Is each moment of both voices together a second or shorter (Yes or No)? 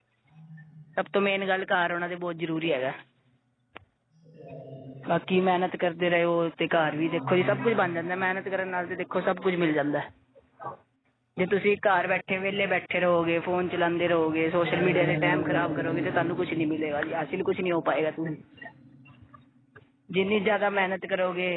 No